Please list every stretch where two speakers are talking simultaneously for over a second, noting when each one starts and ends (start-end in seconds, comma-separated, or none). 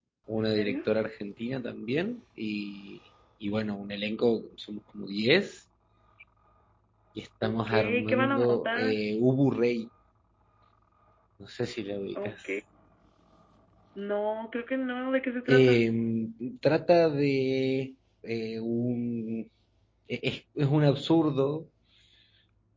7.4-8.9